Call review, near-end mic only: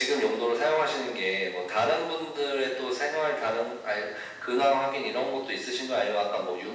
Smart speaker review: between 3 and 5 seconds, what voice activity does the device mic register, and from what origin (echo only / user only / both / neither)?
echo only